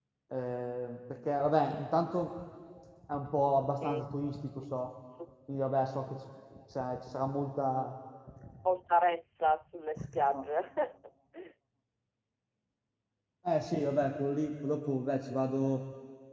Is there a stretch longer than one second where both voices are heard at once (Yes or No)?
No